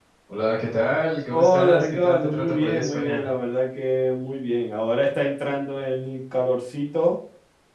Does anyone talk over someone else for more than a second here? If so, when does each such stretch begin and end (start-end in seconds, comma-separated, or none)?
1.3-3.2